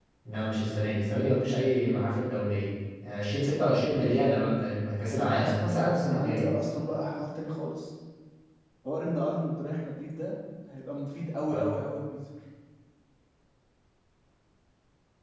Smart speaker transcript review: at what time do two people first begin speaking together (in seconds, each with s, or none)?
5.2 s